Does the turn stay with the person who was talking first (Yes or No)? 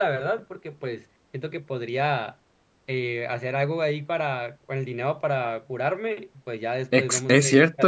No